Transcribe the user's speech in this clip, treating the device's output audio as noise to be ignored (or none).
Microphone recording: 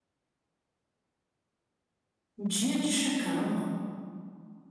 Dia de chacal.